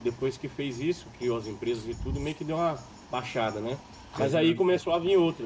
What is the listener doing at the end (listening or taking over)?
listening